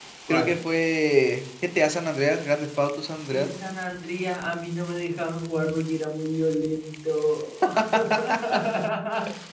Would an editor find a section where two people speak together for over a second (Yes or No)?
No